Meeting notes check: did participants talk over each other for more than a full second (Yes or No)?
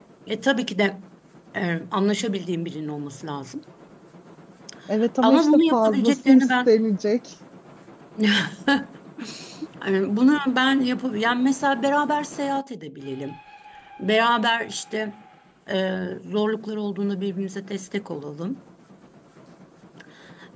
Yes